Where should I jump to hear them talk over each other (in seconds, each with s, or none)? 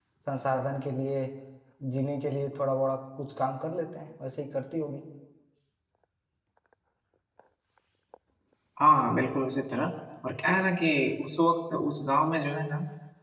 none